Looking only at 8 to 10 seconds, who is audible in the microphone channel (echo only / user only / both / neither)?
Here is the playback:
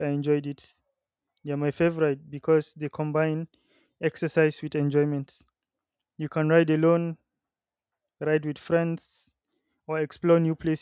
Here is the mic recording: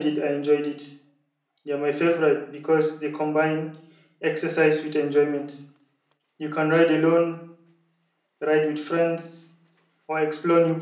echo only